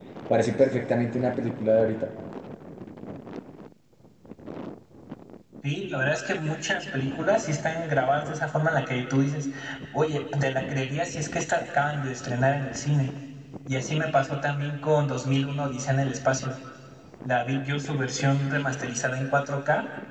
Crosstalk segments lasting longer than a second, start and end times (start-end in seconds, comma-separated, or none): none